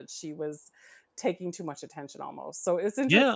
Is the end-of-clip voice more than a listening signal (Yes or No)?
Yes